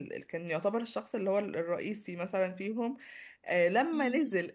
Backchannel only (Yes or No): Yes